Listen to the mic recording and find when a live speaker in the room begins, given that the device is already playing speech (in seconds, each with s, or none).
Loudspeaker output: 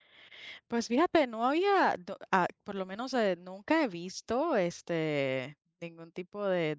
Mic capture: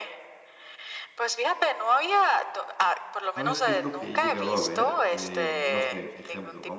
3.3 s